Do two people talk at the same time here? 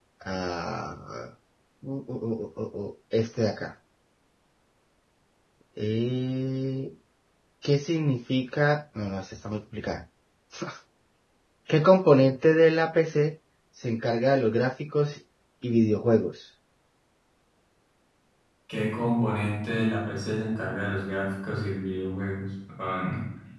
No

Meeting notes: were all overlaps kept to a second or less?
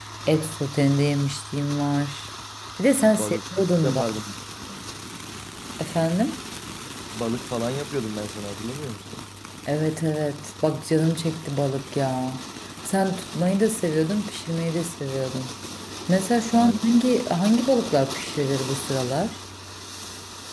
Yes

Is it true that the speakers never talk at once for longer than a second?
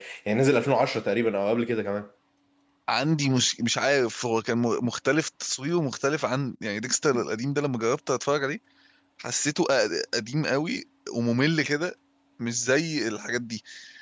Yes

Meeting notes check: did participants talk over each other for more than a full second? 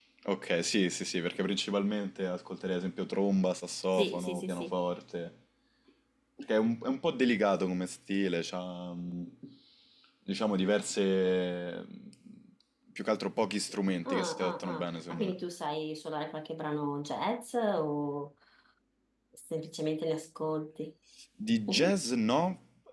Yes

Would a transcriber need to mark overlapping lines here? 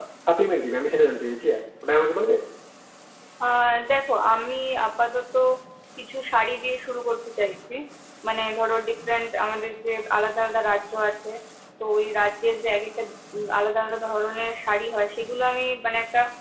No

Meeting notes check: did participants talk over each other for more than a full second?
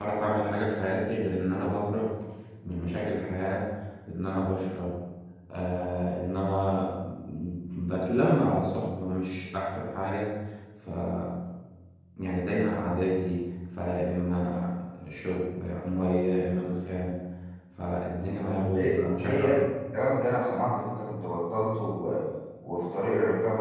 Yes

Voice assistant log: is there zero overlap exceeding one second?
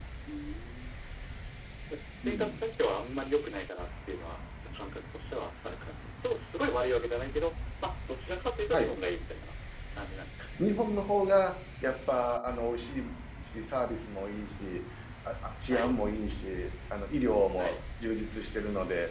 Yes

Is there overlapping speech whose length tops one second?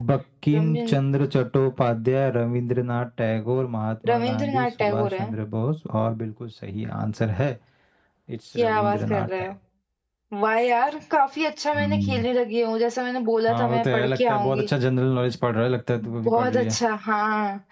Yes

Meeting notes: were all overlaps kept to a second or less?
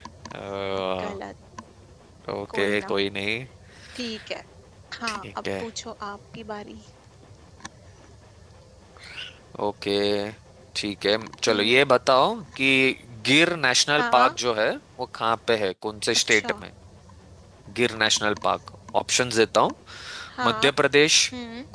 Yes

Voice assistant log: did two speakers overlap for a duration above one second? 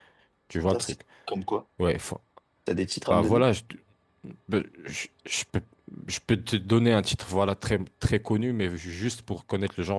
No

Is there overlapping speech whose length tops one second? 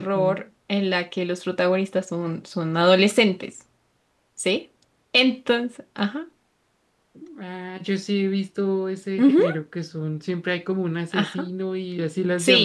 No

